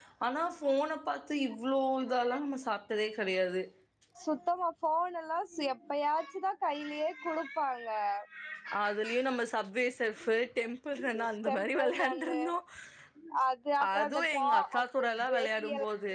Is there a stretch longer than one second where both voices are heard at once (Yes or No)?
Yes